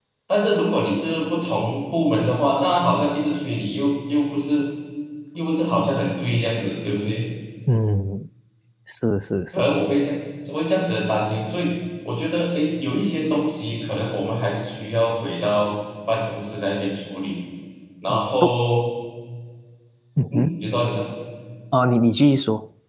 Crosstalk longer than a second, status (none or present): none